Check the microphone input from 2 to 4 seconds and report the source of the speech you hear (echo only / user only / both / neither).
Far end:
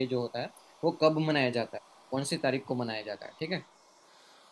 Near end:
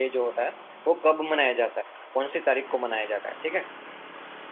echo only